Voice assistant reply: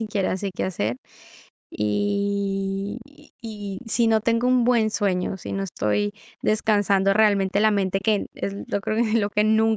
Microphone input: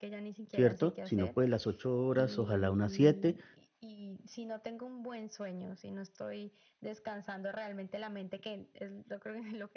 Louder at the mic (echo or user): user